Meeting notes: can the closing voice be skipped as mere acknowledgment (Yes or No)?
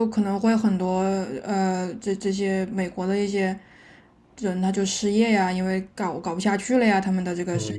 No